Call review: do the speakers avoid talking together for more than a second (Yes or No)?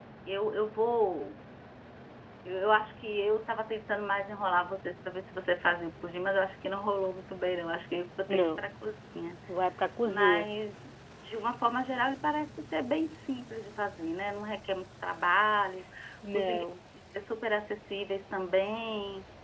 Yes